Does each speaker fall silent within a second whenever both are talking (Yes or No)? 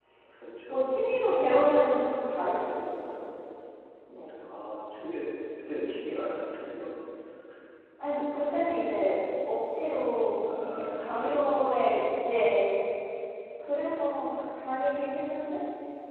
No